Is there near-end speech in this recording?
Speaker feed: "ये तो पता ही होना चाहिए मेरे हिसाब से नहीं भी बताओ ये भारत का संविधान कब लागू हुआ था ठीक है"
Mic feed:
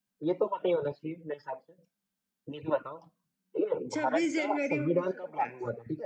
Yes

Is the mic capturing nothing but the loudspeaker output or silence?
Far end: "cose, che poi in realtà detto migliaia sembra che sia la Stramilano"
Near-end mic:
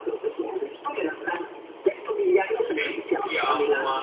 No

